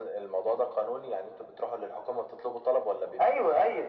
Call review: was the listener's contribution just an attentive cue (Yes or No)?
No